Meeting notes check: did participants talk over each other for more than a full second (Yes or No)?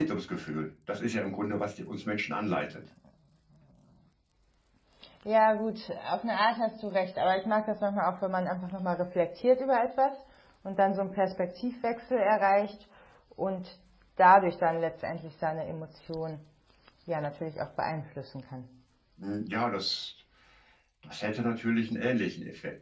No